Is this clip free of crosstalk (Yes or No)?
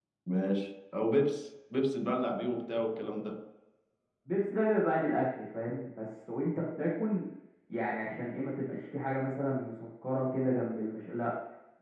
Yes